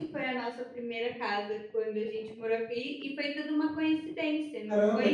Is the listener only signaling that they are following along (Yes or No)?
No